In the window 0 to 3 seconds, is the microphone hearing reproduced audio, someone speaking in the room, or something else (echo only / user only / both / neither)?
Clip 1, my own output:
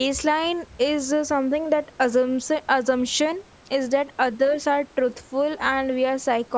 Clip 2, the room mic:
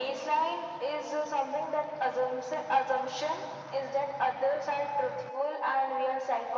echo only